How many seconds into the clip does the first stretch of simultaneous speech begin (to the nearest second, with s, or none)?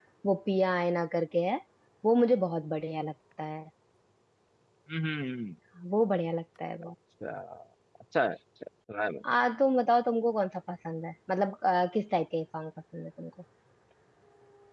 none